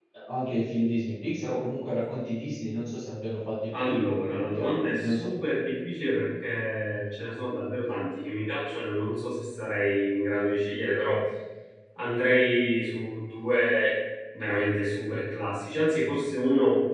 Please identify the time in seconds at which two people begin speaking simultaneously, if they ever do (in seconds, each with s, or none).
3.7 s